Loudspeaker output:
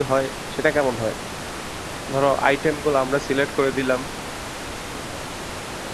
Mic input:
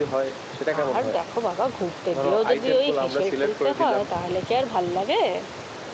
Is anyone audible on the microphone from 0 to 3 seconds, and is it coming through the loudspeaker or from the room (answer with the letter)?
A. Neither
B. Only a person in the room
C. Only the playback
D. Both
D